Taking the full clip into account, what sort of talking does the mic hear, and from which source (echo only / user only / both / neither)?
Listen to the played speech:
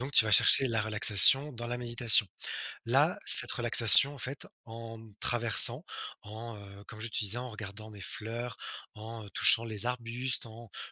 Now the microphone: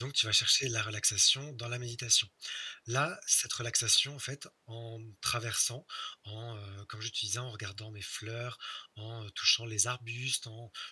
echo only